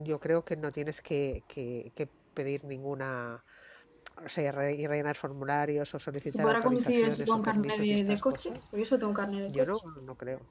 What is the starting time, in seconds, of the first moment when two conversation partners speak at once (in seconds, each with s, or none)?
6.3 s